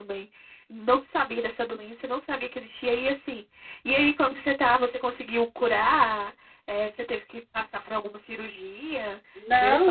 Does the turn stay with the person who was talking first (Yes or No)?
No